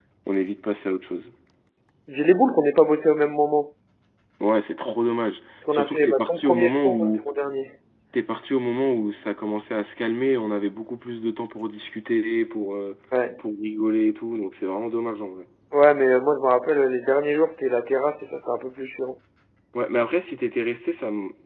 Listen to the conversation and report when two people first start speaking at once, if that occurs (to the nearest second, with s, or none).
6 s